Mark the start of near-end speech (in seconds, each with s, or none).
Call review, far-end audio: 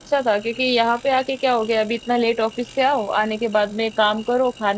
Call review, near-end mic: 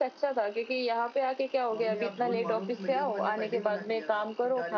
1.7 s